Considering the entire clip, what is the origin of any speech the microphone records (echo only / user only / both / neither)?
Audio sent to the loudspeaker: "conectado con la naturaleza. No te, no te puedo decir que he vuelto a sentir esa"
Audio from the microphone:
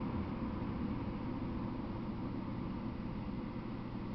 neither